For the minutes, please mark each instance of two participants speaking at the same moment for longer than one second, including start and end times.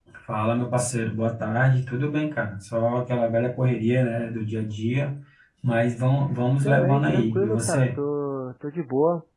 6.6-7.9

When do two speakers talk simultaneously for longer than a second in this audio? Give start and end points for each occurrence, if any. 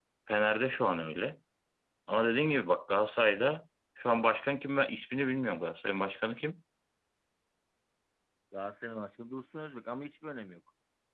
none

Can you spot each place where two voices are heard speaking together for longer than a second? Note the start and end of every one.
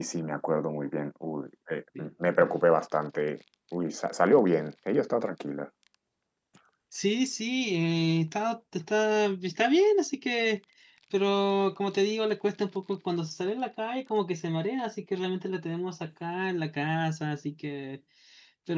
none

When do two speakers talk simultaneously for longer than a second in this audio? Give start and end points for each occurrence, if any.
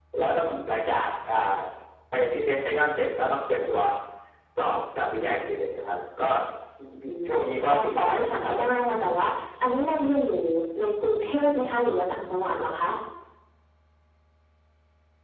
7.3-8.6

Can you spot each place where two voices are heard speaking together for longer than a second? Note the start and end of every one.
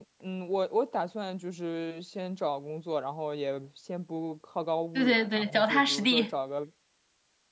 5.0-6.3

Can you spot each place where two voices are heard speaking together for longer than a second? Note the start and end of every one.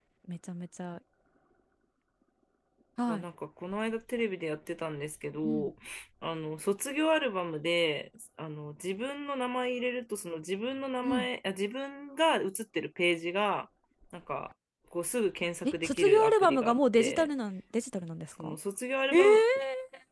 15.6-17.3

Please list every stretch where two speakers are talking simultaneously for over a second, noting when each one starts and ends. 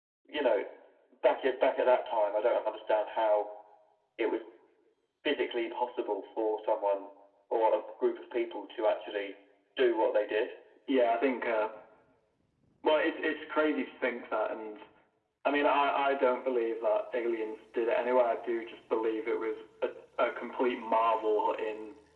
none

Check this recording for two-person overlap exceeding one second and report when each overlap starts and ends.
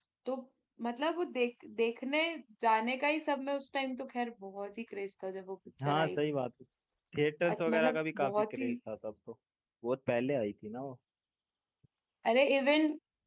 7.5-8.7

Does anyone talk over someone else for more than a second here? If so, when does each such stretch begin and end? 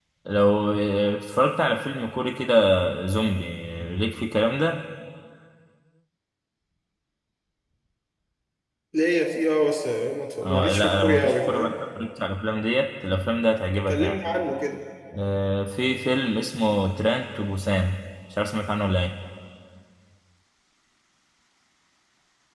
10.4-11.7

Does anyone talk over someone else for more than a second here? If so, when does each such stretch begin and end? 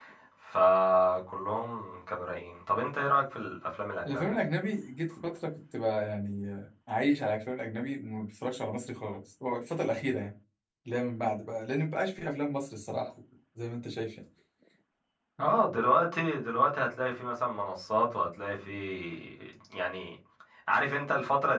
none

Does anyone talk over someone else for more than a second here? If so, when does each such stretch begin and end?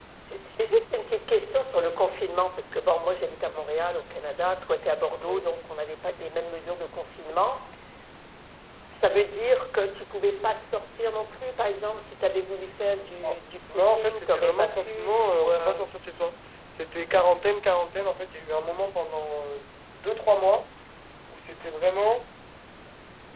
13.7-15.8

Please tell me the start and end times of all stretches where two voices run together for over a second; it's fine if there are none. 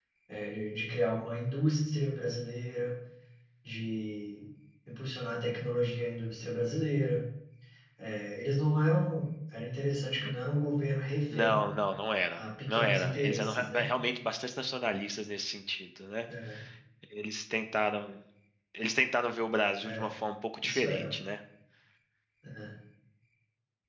12.4-13.9

